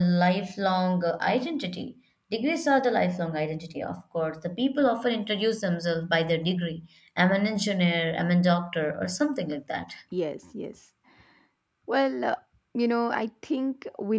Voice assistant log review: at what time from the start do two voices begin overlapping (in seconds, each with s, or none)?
none